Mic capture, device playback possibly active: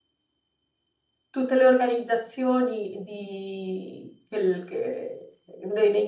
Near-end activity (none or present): present